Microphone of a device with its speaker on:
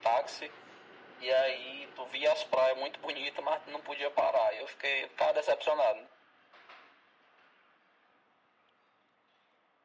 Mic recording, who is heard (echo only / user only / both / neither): echo only